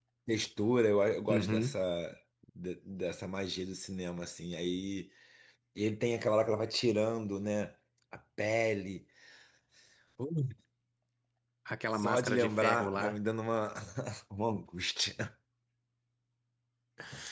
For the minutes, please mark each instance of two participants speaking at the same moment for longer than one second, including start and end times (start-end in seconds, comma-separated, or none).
11.9-13.2